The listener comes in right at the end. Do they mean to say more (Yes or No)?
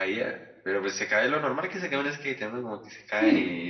No